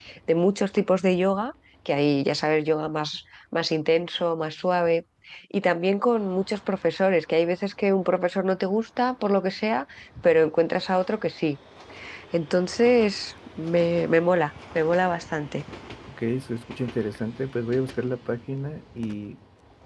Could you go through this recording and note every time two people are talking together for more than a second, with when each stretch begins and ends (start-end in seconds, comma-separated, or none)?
none